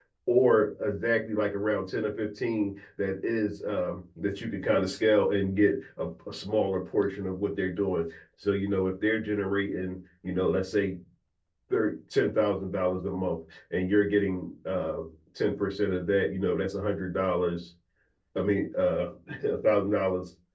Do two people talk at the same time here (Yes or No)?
No